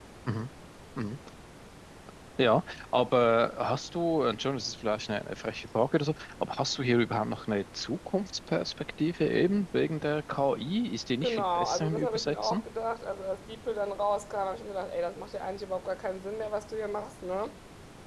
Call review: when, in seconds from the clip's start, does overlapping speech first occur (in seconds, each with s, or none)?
11.2 s